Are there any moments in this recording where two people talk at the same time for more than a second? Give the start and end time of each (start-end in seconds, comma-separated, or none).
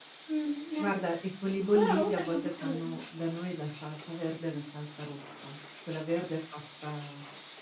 1.7-3.0